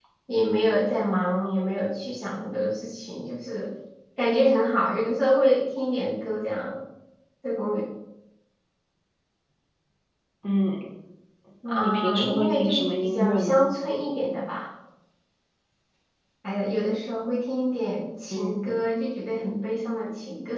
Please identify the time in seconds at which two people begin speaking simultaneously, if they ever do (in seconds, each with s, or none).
11.6 s